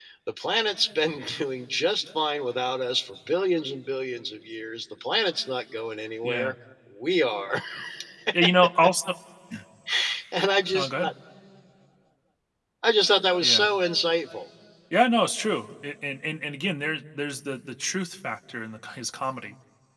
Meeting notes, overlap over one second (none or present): none